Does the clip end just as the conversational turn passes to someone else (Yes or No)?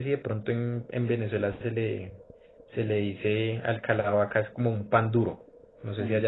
No